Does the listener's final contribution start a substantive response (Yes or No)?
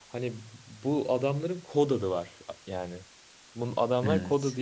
No